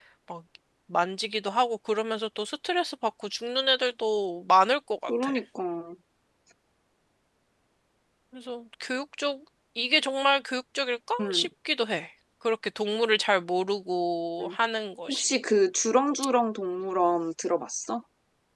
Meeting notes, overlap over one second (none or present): none